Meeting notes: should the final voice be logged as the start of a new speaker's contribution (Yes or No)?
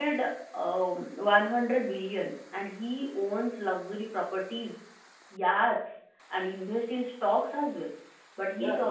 No